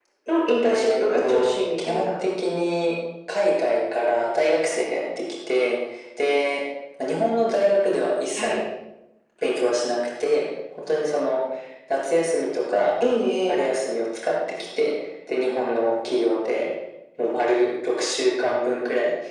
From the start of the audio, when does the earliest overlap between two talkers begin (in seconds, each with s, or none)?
0.7 s